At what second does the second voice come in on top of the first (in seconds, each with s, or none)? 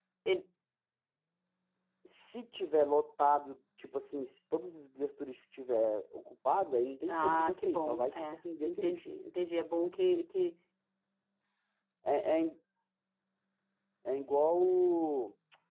7.1 s